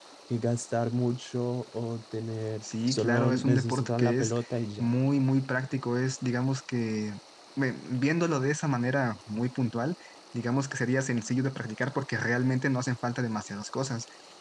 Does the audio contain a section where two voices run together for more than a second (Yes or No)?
Yes